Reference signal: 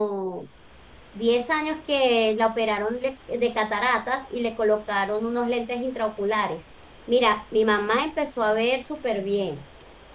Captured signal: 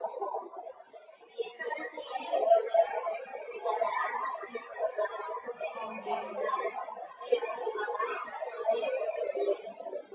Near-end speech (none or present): present